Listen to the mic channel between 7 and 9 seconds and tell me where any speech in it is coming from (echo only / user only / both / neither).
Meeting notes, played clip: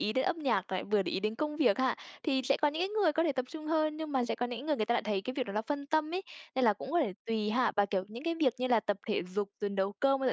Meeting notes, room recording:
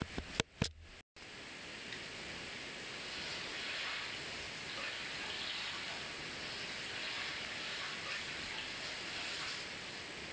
neither